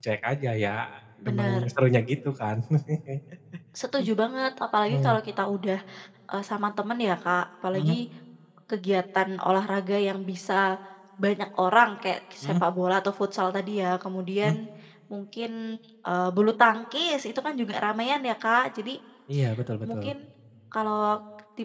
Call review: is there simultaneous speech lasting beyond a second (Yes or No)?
No